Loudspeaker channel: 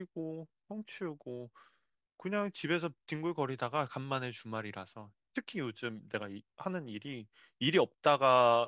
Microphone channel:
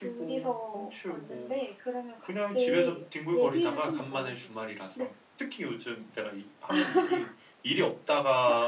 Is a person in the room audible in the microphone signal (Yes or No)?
Yes